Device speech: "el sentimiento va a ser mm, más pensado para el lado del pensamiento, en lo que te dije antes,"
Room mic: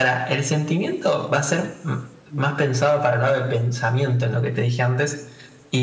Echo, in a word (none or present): present